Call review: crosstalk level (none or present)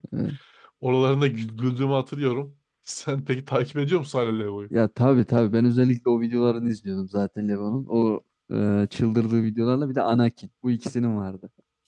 none